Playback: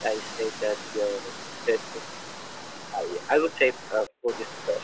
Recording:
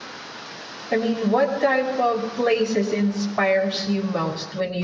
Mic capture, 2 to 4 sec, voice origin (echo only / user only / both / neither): user only